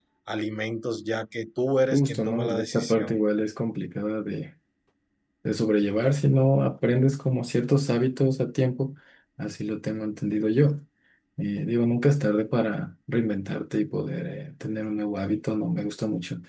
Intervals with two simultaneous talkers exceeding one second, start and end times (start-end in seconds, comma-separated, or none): 1.9-3.2